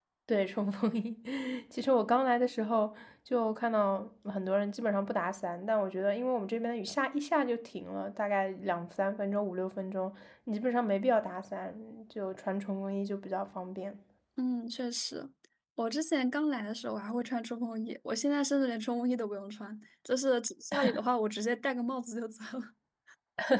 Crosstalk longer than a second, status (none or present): none